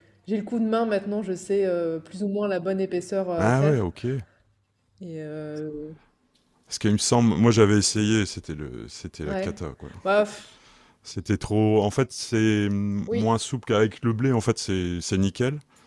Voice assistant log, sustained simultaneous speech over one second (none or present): none